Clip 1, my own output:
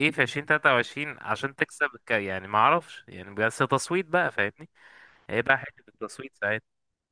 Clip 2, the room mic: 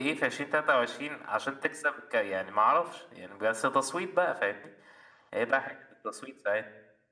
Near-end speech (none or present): none